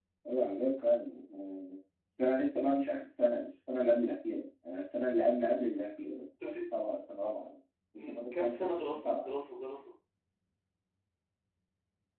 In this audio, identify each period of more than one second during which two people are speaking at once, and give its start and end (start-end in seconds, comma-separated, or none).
8.0-9.3